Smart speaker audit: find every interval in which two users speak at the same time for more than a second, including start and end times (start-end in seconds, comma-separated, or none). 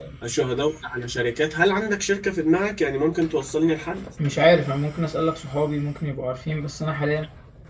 none